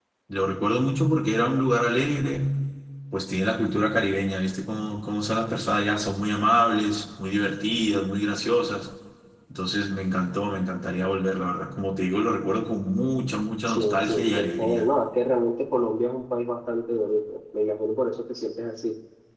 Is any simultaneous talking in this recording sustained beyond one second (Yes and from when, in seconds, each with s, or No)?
Yes, from 13.7 s